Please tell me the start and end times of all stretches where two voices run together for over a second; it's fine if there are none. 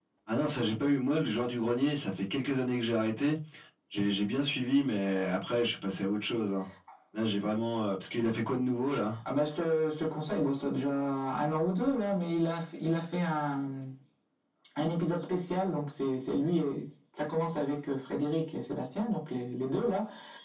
none

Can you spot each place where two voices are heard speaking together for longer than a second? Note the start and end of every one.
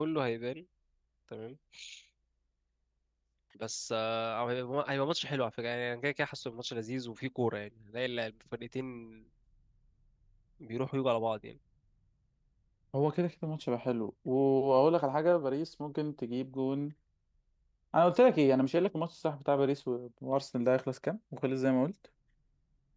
none

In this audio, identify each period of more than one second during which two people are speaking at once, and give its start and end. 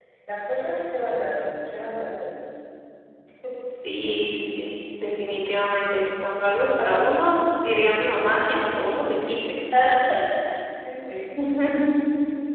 none

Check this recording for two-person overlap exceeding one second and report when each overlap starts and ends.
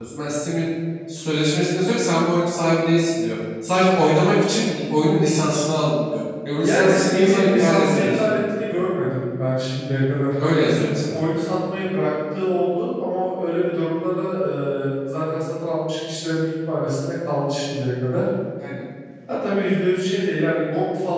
6.5-8.4

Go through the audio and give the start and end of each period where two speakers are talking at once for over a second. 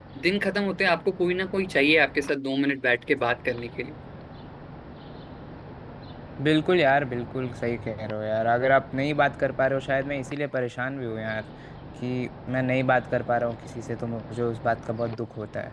none

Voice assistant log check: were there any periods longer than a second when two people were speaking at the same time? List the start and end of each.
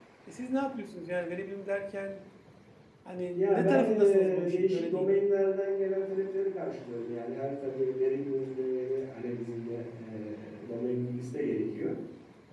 3.4-5.2

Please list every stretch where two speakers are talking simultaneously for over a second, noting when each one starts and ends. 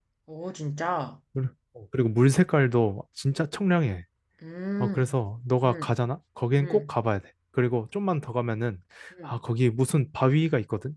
none

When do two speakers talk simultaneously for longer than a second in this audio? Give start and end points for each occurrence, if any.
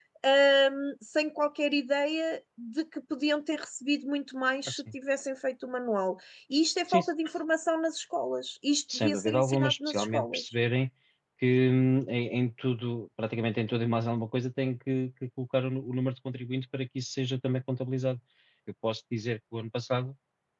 8.9-10.5

